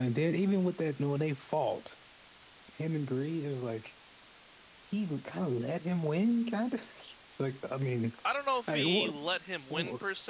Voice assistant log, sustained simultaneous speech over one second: none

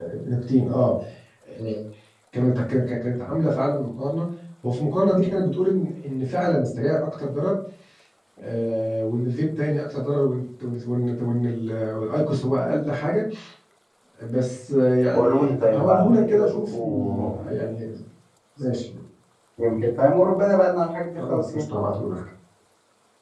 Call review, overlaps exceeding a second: present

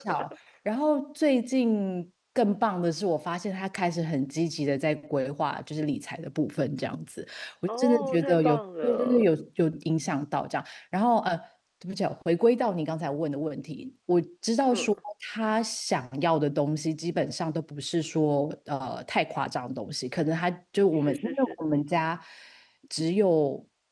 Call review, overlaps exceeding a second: present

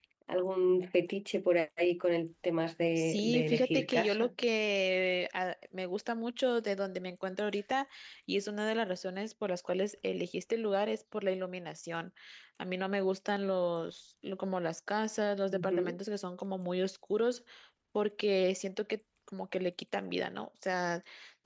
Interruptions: present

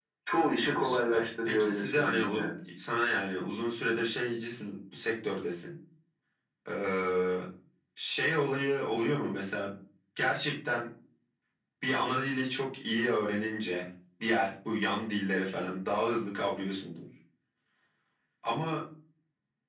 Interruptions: present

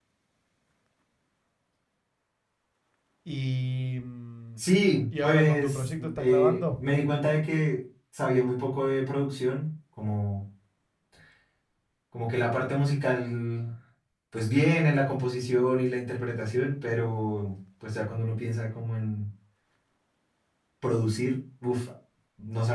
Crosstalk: present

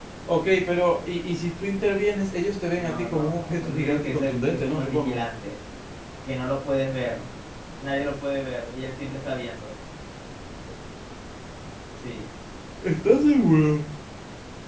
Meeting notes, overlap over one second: present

